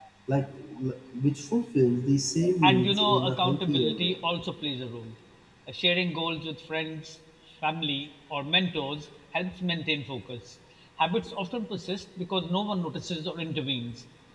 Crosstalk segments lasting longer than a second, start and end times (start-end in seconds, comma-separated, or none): 2.6-4.2